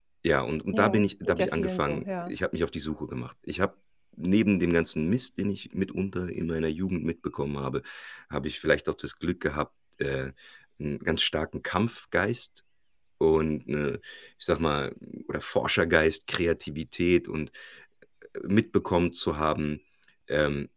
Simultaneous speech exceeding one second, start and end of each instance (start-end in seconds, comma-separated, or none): 0.7-2.3